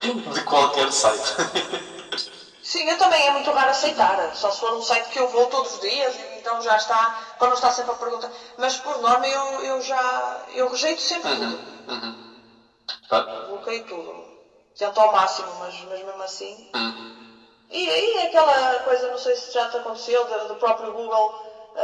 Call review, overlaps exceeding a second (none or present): none